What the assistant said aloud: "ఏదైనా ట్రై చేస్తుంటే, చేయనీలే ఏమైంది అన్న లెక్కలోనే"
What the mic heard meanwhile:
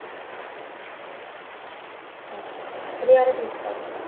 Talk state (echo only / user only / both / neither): user only